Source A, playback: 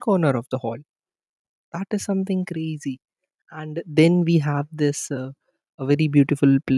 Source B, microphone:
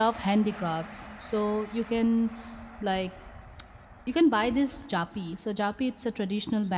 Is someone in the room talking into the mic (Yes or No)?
Yes